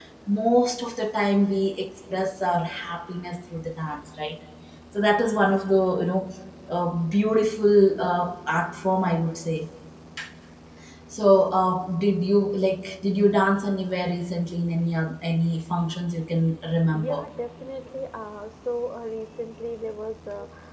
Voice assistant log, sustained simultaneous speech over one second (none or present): none